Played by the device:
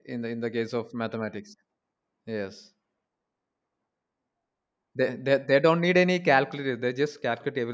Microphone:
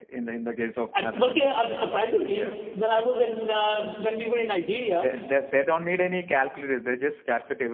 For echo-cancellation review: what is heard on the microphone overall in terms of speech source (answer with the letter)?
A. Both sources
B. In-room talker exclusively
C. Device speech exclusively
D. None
A